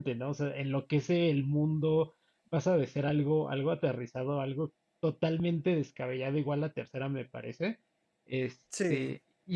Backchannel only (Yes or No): Yes